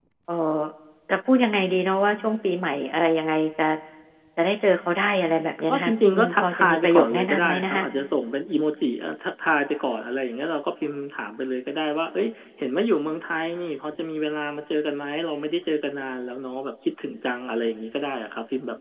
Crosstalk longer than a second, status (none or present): present